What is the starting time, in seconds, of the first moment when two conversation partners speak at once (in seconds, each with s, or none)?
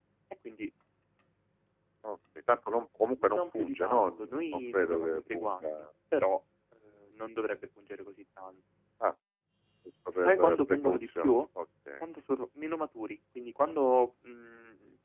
3.2 s